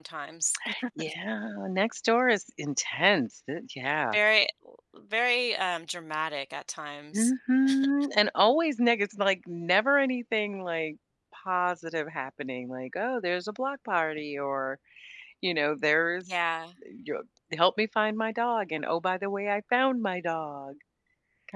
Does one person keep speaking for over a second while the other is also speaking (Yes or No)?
No